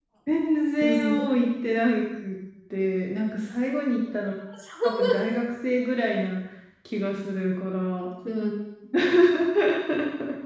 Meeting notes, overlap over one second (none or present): none